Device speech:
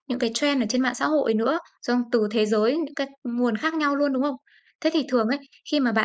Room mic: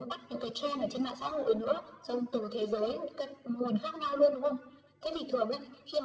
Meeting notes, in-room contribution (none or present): none